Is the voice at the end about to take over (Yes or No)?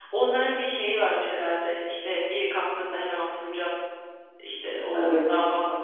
No